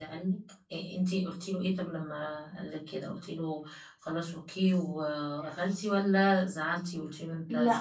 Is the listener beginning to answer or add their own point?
Yes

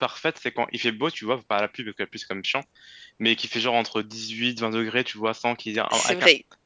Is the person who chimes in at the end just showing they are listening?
Yes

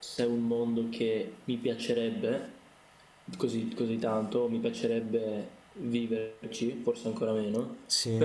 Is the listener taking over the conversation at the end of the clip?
No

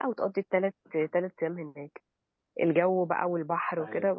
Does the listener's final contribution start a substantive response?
No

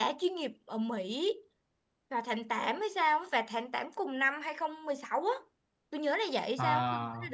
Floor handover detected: No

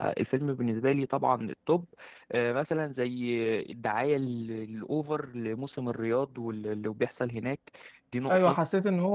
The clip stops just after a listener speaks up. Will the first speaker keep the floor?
No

